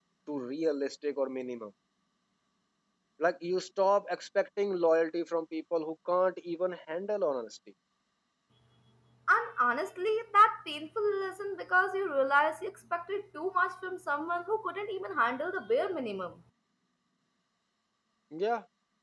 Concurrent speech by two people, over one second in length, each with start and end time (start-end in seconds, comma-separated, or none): none